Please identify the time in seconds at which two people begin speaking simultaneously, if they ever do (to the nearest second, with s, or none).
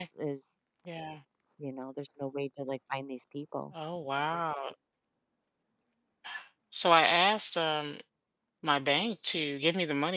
none